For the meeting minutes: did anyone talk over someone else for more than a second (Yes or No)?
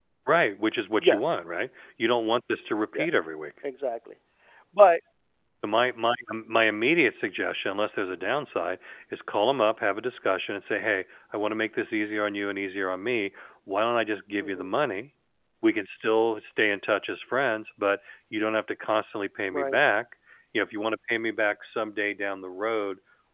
No